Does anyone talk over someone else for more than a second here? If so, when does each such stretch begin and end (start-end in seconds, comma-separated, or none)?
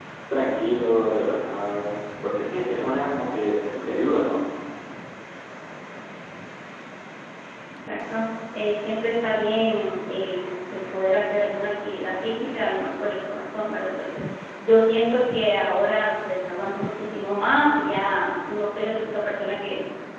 none